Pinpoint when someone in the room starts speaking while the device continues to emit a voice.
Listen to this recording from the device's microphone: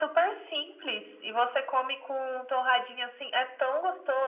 none

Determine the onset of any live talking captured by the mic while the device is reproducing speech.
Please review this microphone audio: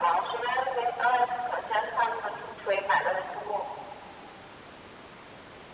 none

